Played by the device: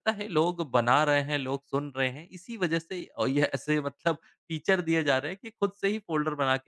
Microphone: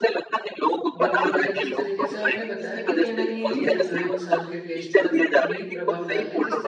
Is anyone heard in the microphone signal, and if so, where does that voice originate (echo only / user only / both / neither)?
both